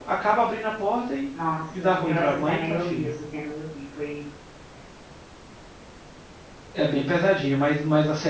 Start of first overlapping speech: 1.8 s

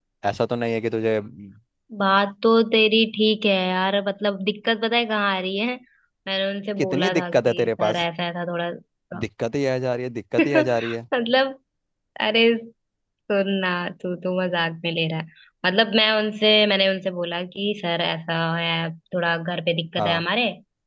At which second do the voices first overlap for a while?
6.8 s

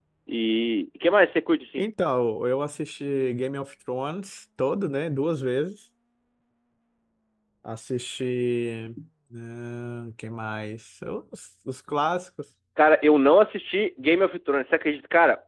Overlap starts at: none

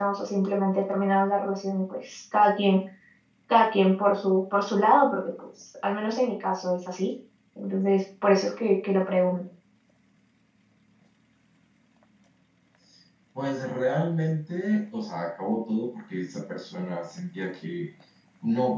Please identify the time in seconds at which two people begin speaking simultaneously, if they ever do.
none

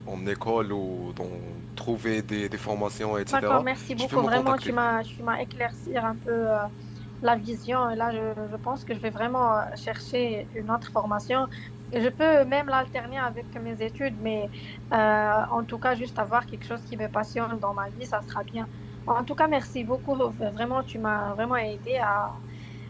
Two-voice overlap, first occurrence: 3.3 s

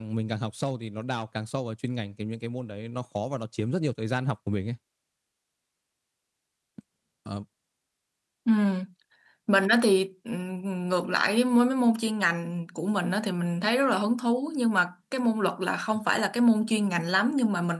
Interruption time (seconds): none

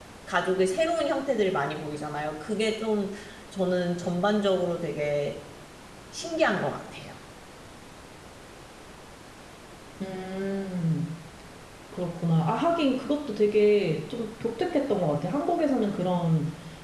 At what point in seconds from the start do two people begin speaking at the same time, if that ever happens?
none

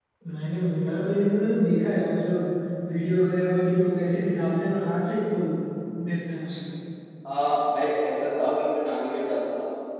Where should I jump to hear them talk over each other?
none

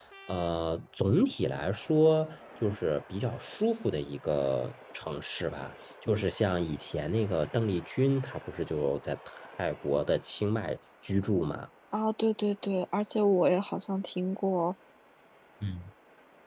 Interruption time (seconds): none

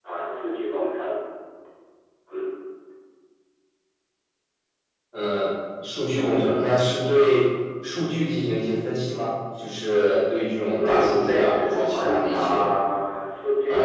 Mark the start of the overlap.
10.8 s

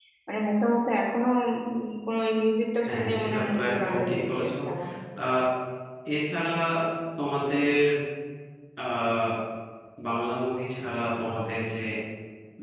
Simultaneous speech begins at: 2.9 s

